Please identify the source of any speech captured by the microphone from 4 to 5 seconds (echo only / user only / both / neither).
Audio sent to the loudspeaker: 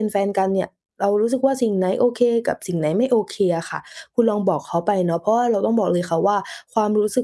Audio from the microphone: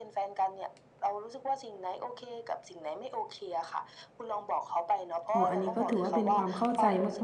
echo only